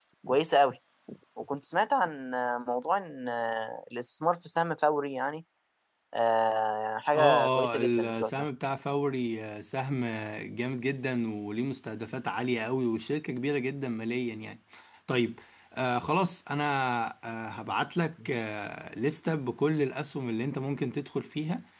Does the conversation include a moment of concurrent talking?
Yes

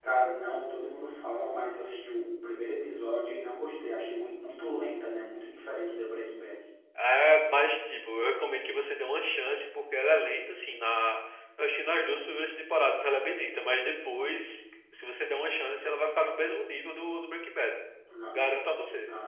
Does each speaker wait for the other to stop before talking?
Yes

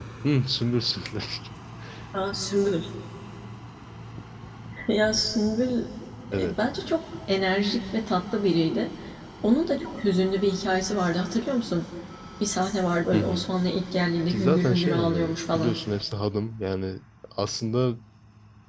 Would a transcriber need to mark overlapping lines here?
Yes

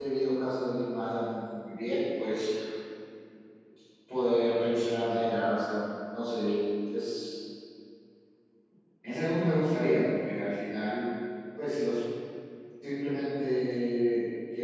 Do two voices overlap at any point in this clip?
No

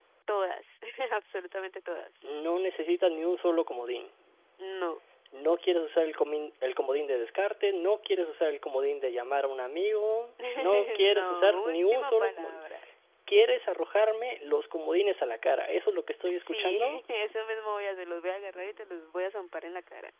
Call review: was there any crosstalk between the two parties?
Yes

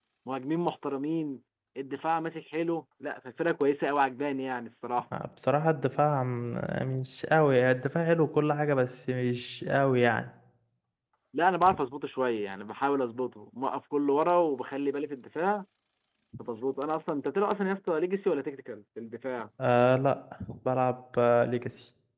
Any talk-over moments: No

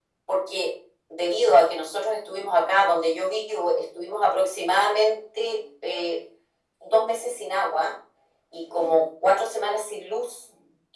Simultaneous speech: No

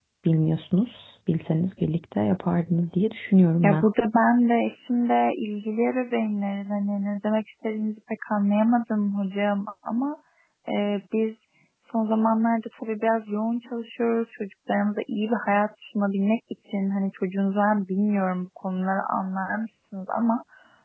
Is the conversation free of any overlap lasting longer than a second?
Yes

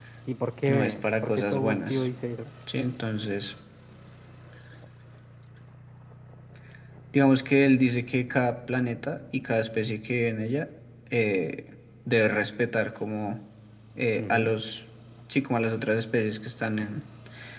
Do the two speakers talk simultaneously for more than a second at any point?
Yes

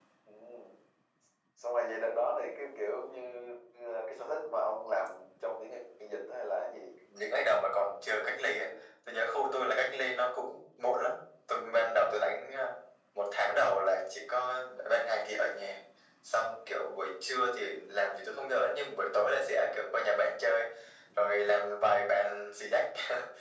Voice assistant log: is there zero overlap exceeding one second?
Yes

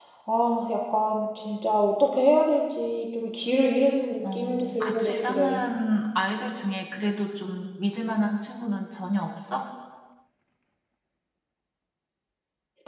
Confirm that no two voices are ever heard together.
No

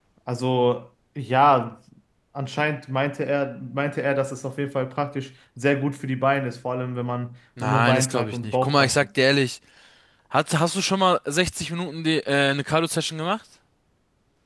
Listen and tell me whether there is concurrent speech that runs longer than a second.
Yes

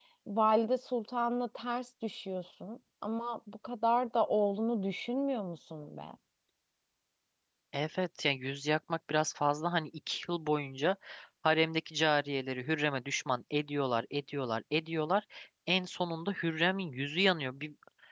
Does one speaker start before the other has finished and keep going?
No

